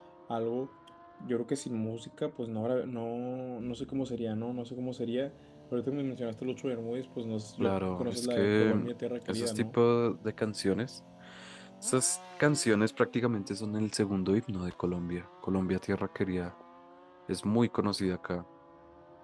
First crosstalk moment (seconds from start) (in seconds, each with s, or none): 7.6 s